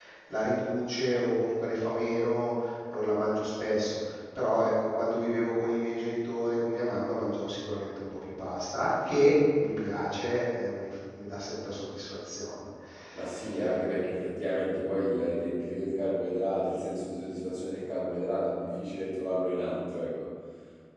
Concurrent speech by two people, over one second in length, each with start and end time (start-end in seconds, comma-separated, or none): none